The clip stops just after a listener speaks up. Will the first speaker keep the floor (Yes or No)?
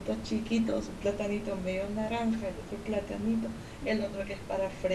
Yes